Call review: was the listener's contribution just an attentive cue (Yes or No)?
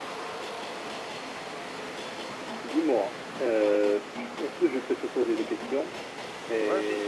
No